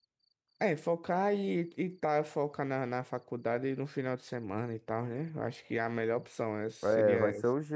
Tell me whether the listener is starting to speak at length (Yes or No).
Yes